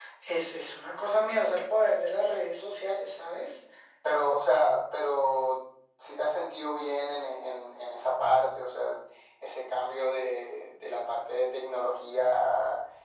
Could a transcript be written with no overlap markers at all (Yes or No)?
Yes